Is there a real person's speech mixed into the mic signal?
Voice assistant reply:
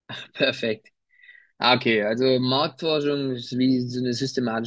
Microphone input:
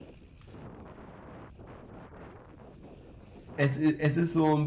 Yes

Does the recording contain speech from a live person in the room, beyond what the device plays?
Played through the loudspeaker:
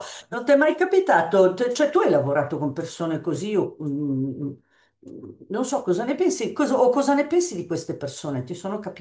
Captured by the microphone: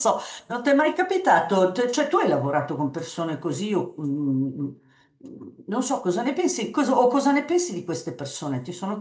No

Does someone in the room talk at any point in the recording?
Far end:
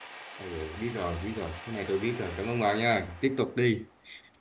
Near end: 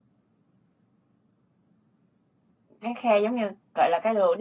Yes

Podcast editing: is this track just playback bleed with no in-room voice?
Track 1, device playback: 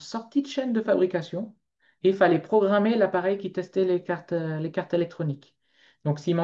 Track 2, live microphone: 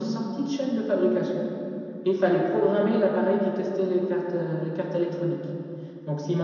Yes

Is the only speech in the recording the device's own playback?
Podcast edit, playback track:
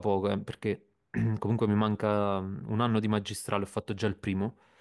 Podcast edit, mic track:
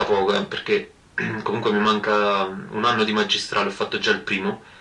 Yes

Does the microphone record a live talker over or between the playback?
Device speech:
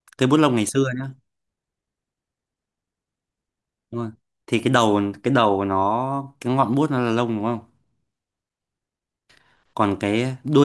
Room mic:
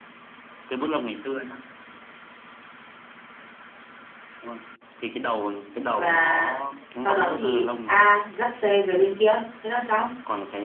Yes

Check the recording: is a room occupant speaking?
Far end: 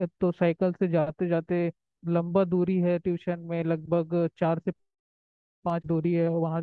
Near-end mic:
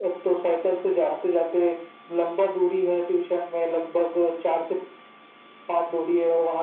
No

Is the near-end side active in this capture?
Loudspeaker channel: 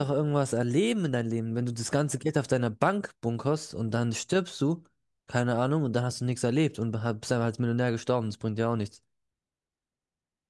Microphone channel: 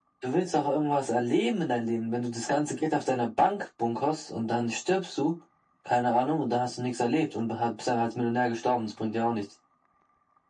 No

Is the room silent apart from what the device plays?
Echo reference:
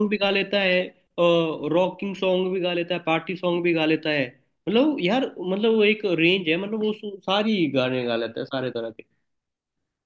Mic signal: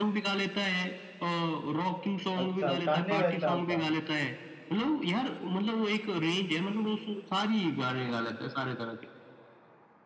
No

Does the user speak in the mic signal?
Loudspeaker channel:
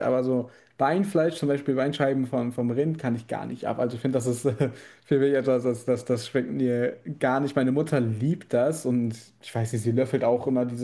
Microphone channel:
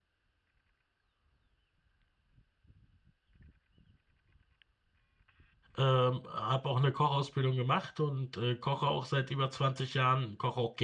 Yes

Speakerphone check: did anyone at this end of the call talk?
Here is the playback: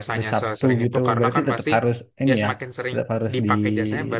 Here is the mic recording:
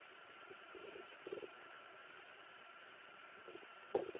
No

